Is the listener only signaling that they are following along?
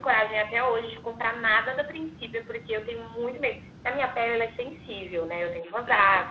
Yes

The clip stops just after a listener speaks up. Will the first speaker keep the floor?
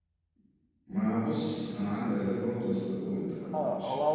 No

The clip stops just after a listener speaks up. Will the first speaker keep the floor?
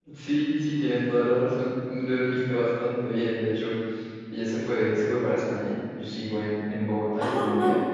Yes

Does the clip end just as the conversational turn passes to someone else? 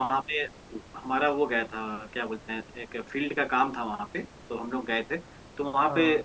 No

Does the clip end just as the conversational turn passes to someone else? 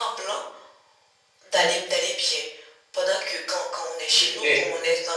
No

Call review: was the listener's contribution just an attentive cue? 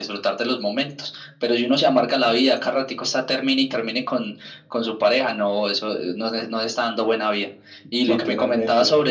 Yes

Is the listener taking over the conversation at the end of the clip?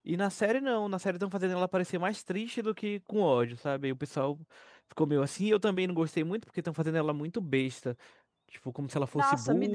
Yes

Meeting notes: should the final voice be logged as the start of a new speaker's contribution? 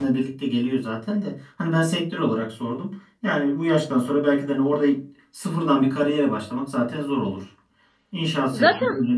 No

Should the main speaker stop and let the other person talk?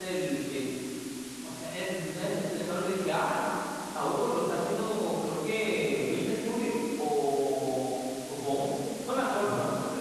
No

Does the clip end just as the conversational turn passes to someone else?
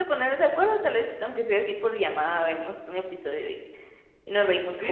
Yes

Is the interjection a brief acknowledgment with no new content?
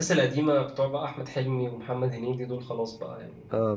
No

